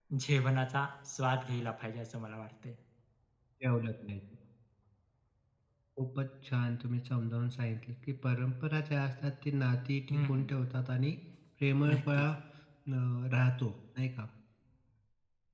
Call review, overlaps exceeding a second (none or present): none